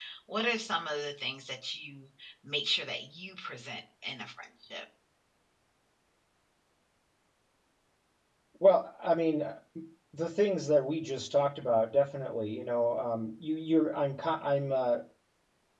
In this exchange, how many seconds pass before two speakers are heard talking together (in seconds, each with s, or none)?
none